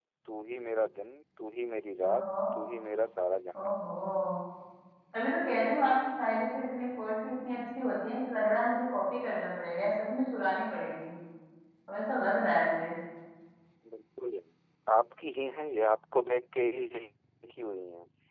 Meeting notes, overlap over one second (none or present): none